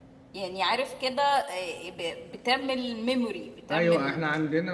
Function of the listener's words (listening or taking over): taking over